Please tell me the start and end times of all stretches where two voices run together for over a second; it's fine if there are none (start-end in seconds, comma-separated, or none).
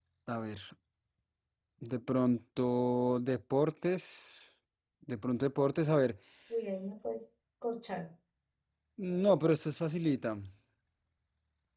none